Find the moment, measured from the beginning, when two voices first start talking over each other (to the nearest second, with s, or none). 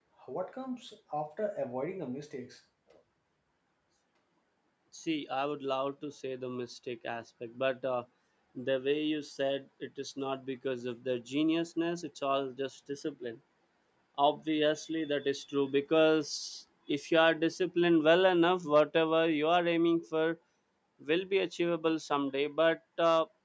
none